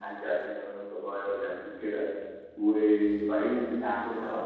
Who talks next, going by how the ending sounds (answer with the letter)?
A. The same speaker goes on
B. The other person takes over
B